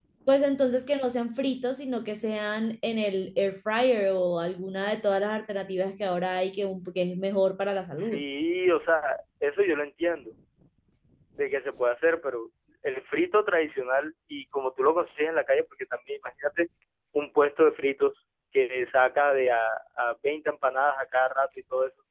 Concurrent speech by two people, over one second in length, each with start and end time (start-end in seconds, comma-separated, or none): none